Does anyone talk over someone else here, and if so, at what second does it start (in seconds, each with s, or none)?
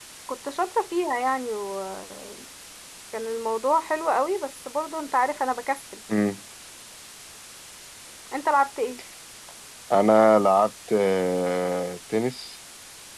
none